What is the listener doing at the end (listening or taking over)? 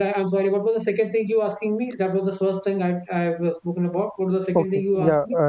taking over